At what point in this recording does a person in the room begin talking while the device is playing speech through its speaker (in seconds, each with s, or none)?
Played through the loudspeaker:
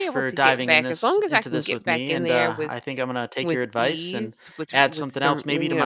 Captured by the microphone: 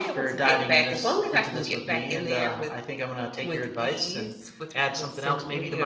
none